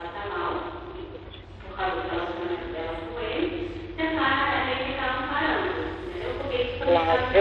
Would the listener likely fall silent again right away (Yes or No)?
No